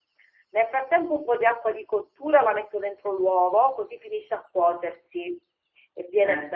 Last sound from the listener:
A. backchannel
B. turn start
A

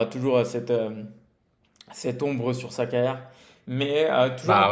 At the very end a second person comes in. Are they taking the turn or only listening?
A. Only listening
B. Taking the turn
A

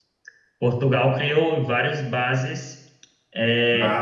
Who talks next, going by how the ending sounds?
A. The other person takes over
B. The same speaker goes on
B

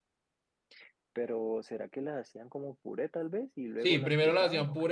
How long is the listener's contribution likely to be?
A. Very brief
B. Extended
B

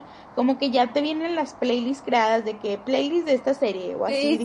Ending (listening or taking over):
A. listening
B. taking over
B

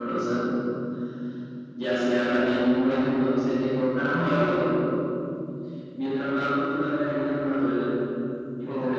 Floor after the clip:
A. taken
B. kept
B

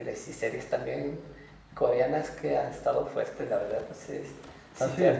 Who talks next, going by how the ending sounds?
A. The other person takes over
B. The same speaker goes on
B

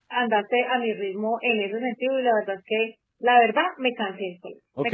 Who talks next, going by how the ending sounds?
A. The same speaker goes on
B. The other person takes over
B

